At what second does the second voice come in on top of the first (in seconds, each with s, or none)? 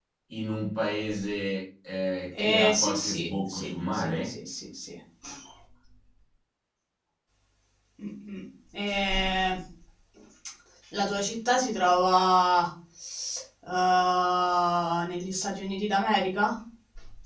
2.3 s